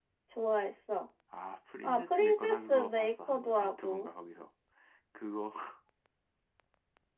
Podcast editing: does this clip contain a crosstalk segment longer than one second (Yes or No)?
Yes